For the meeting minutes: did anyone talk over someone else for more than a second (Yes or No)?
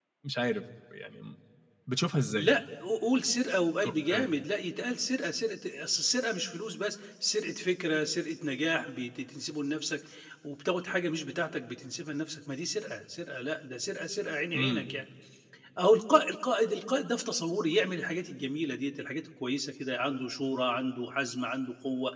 No